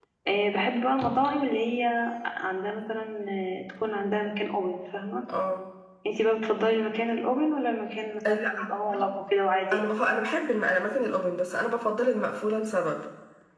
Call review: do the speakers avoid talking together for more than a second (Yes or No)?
Yes